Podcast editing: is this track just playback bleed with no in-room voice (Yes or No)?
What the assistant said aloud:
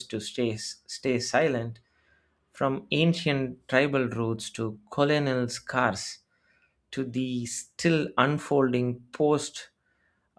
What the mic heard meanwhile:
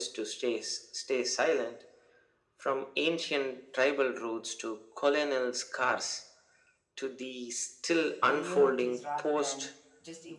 No